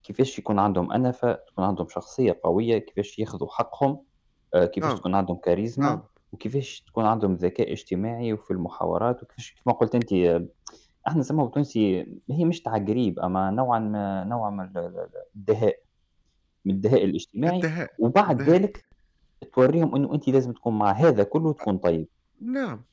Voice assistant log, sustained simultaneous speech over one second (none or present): none